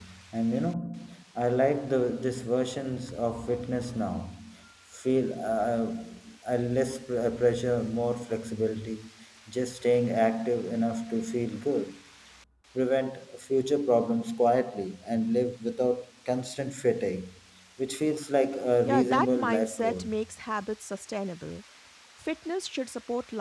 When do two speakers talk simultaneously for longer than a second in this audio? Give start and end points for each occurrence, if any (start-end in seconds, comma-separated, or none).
18.8-20.1